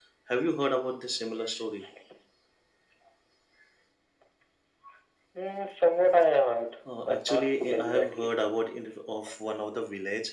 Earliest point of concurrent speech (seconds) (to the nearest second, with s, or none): 7 s